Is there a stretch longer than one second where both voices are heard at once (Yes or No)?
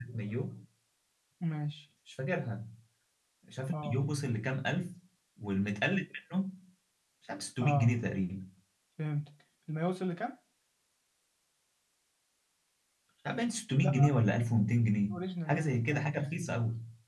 Yes